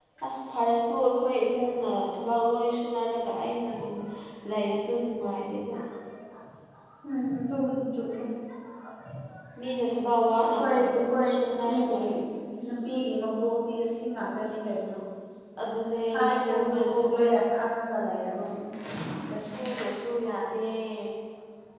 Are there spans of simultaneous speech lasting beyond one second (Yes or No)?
Yes